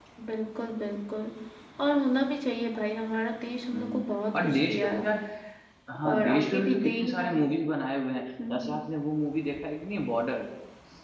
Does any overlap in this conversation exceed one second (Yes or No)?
Yes